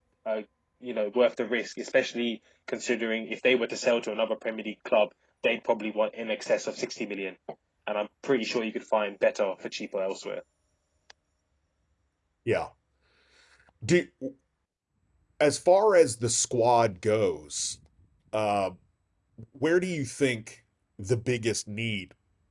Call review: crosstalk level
none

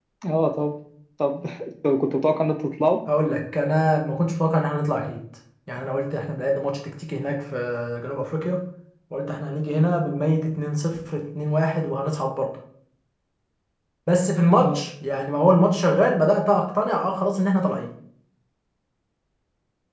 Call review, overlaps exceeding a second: none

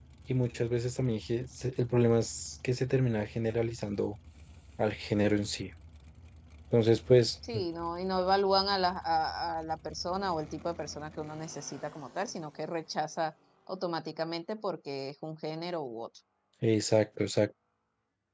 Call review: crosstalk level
none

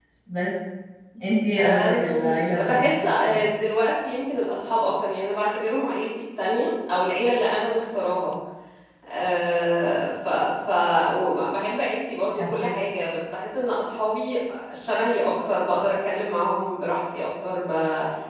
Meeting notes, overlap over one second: present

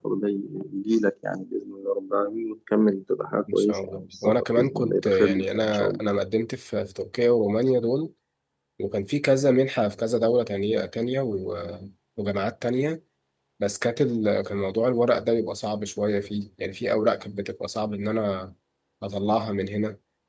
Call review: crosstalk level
present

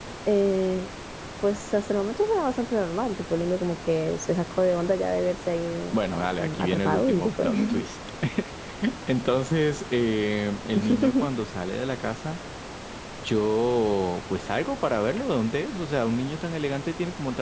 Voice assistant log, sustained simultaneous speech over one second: present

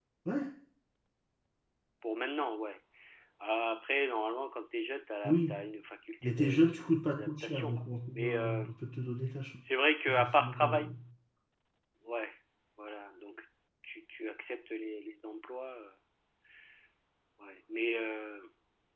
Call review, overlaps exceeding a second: present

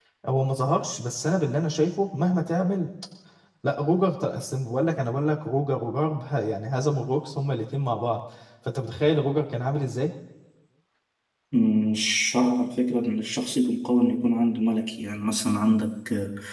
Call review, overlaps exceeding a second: none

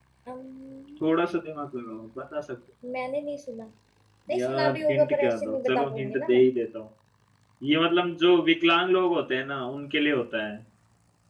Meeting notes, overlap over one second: present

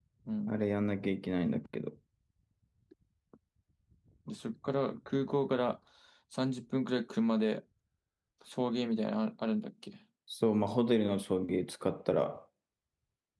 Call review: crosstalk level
none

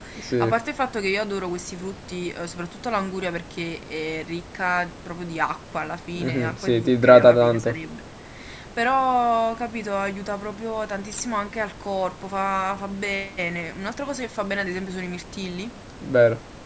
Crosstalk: present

